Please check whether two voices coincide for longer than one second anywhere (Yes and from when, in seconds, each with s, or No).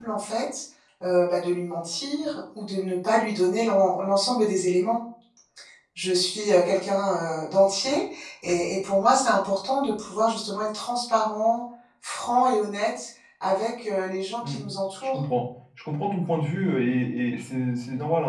No